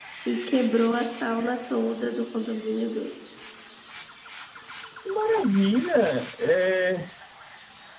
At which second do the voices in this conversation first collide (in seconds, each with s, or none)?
none